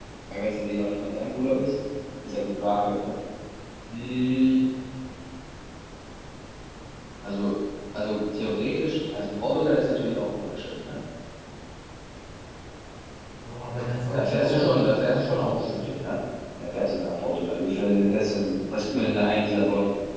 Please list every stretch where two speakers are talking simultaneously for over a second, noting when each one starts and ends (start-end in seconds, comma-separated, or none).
14.1-15.8